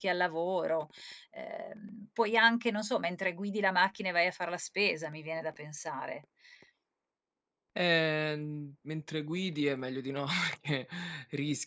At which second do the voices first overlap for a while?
none

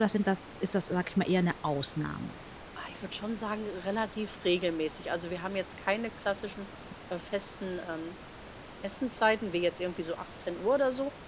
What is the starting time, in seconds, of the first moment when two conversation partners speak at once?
none

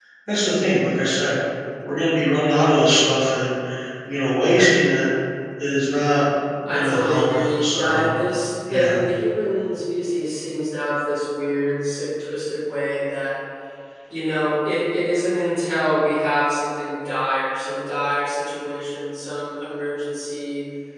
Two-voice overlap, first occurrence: 6.7 s

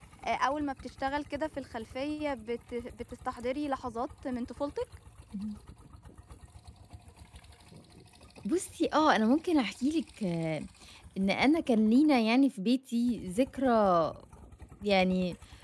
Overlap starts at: none

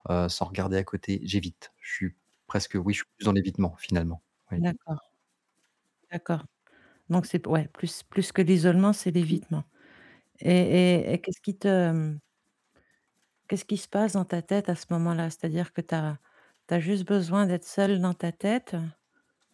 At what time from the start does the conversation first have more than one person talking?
none

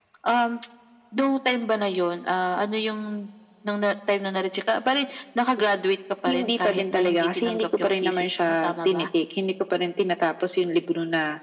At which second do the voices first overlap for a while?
6.3 s

